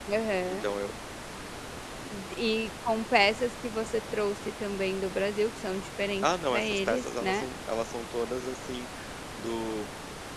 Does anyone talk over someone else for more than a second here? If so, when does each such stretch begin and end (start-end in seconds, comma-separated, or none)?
6.2-7.5